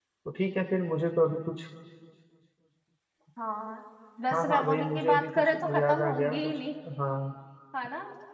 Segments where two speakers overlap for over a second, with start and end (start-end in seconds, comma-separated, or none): 4.3-6.6